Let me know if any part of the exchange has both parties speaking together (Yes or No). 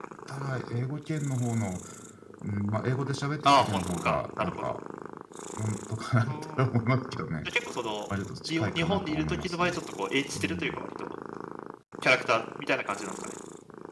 Yes